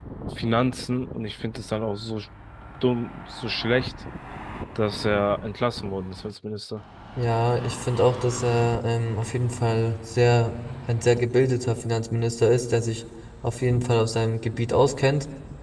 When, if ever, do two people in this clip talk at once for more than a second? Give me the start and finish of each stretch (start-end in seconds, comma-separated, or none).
none